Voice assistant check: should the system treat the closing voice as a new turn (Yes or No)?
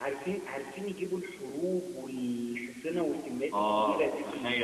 Yes